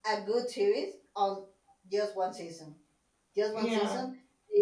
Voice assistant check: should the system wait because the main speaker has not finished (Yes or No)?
Yes